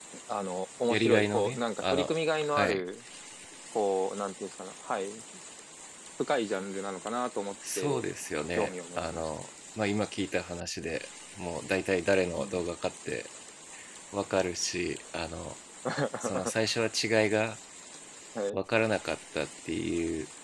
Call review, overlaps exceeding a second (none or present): present